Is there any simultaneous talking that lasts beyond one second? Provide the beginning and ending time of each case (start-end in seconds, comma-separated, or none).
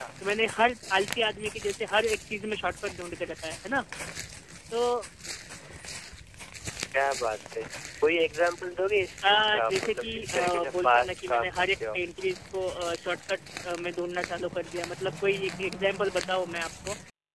9.2-12.0